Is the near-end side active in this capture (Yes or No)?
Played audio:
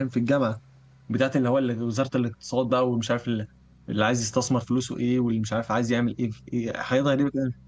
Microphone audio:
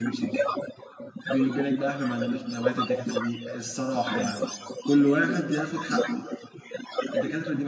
Yes